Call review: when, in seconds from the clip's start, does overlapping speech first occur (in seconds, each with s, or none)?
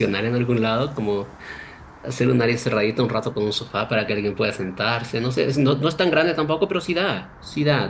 none